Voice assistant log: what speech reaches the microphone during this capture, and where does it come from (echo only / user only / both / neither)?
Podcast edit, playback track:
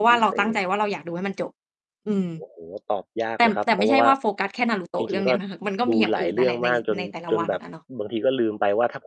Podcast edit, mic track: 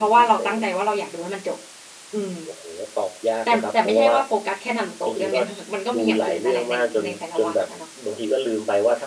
echo only